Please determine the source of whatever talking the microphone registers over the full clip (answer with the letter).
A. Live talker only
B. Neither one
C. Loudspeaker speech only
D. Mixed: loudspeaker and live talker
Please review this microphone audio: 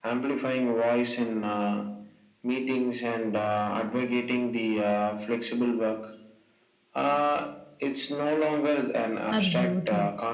D